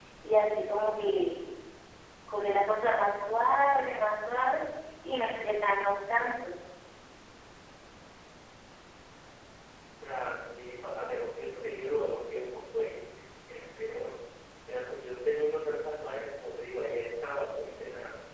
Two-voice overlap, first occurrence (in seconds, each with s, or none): none